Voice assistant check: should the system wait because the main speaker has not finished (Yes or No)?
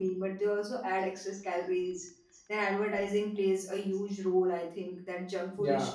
Yes